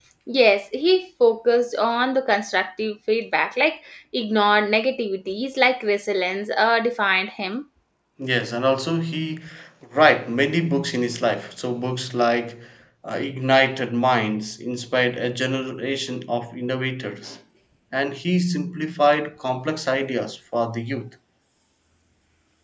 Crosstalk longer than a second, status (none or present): none